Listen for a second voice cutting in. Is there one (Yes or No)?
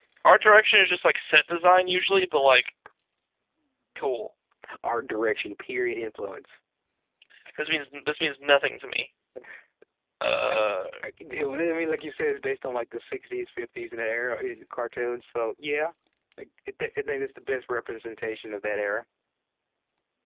No